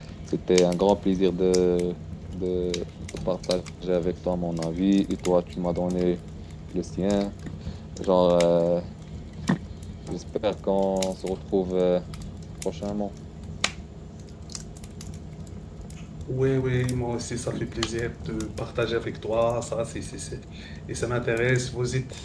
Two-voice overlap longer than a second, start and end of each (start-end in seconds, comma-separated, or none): none